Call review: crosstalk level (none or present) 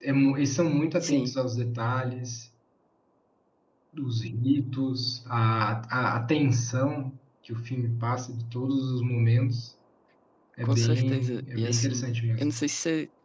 present